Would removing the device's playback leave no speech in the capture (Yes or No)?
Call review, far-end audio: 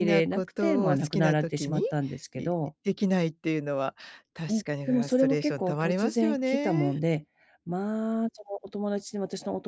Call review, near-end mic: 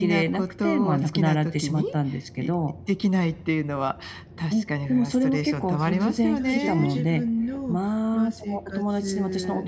No